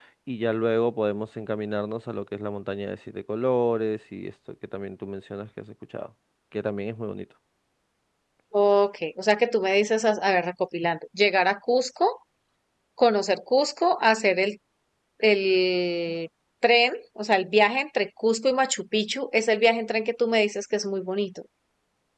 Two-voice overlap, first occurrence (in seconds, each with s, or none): none